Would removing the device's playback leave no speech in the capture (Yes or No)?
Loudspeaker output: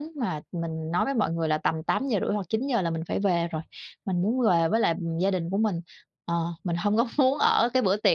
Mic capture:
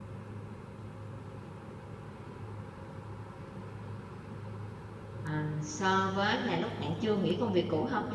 No